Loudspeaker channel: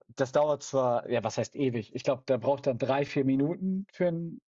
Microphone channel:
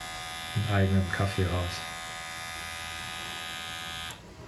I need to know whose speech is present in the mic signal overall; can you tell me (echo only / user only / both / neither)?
user only